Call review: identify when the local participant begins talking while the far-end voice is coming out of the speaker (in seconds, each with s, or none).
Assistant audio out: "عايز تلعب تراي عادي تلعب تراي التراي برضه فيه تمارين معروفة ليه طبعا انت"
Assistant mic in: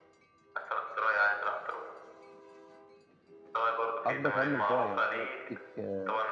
4.1 s